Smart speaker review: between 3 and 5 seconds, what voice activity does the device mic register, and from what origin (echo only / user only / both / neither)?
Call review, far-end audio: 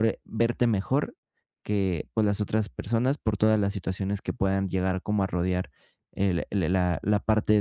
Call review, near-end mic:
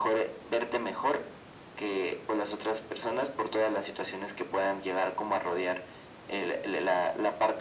echo only